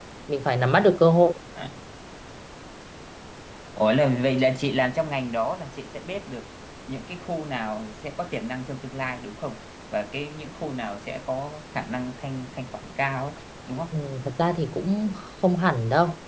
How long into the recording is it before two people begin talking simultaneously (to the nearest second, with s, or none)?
none